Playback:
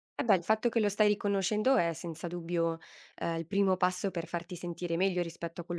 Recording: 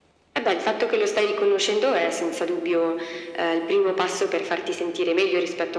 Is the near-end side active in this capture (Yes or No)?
No